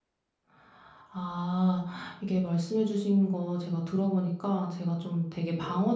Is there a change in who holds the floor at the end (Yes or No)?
No